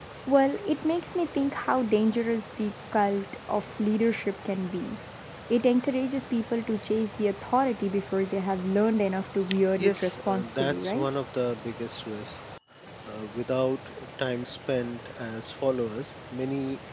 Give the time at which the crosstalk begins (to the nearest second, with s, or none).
10 s